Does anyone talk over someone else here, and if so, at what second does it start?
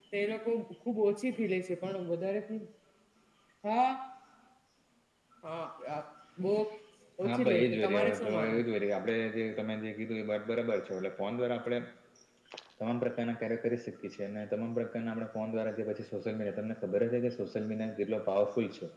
7.2 s

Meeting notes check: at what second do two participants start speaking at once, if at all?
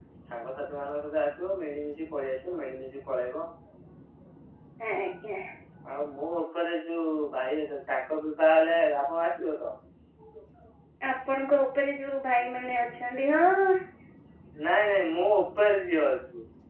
none

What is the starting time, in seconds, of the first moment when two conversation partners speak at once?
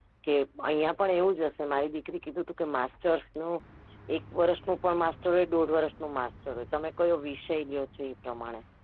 none

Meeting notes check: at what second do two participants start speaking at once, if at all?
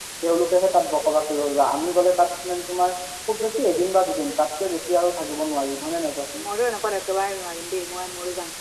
none

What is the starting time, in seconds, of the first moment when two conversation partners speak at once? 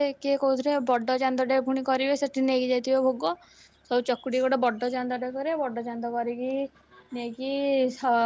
none

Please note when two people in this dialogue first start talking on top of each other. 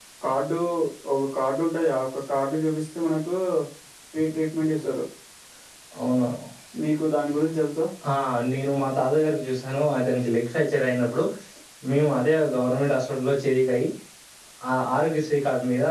none

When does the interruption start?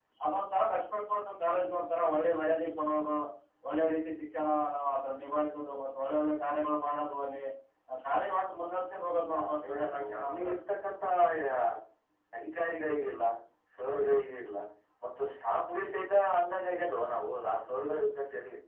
9.2 s

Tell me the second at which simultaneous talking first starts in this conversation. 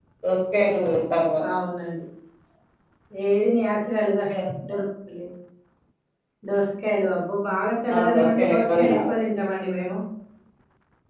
7.9 s

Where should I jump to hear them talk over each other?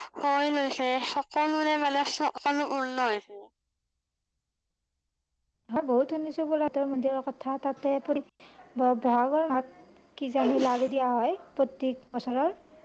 none

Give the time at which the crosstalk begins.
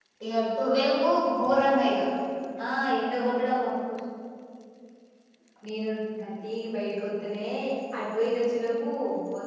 none

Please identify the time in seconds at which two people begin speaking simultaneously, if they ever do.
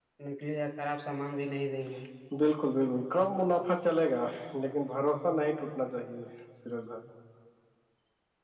none

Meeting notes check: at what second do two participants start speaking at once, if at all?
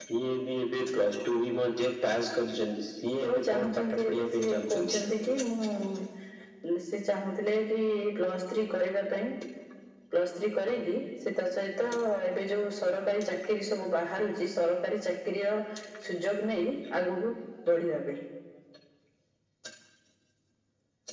3.2 s

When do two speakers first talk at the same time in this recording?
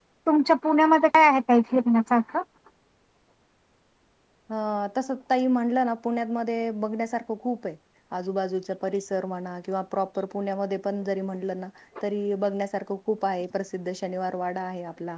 none

